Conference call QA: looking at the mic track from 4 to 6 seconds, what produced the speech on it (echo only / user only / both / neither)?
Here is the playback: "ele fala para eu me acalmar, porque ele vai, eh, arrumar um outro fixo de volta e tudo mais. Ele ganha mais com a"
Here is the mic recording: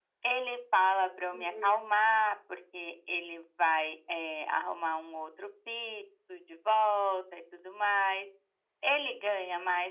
echo only